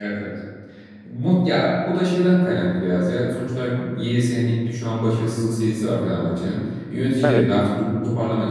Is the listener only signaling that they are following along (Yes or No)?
Yes